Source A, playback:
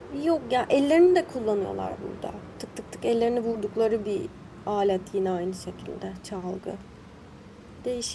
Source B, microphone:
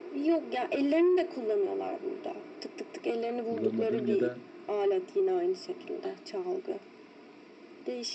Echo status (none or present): present